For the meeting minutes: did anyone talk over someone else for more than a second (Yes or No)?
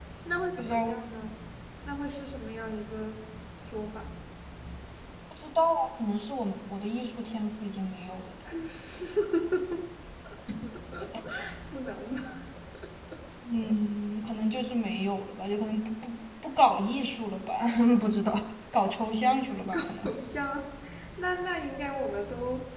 No